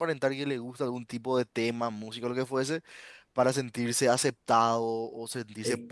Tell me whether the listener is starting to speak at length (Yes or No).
Yes